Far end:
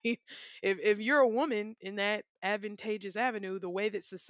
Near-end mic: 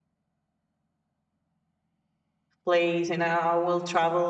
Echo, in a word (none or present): none